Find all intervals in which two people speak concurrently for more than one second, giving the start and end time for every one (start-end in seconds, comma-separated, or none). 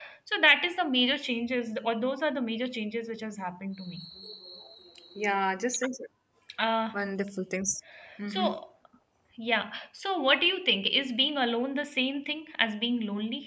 none